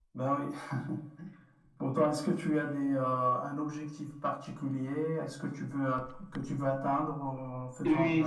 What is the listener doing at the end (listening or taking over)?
taking over